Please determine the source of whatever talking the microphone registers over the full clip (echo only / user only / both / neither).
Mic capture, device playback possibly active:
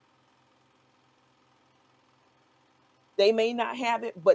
user only